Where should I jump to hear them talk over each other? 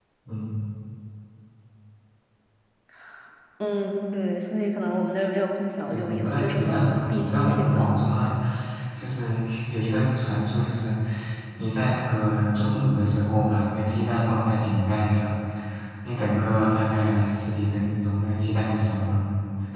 5.9 s

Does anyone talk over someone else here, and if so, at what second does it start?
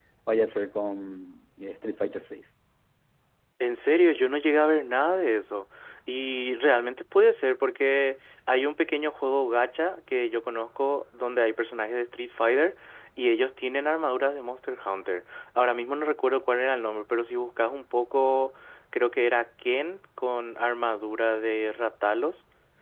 none

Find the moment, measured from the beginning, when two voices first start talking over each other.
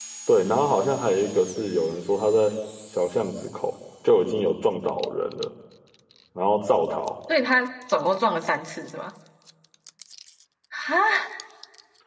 none

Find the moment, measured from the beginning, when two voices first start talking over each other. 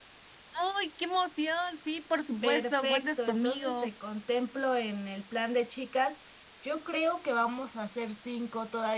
2.4 s

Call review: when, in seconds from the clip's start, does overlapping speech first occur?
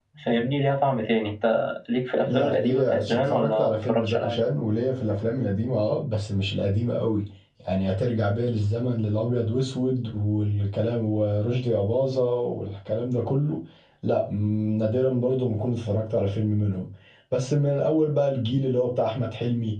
2.3 s

